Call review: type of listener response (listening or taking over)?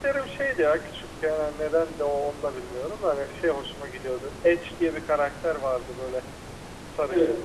listening